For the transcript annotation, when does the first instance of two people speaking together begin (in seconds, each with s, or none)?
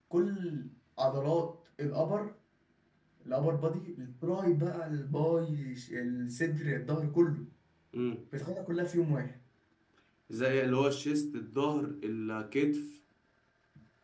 none